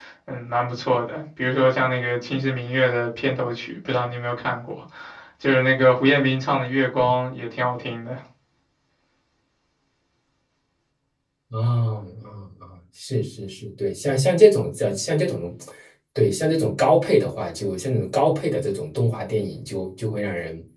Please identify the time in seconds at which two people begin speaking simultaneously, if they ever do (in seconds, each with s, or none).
none